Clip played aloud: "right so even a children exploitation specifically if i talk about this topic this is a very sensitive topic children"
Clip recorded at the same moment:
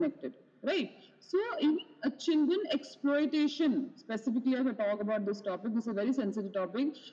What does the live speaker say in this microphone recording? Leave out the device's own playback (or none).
none